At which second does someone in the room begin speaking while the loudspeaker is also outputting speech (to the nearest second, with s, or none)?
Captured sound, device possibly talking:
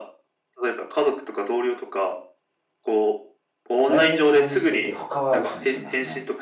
4 s